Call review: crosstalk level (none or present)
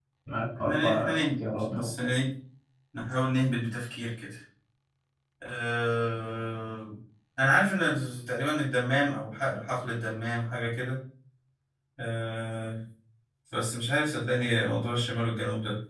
present